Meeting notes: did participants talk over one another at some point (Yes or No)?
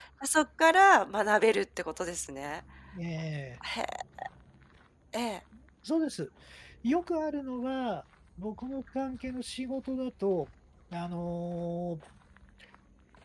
No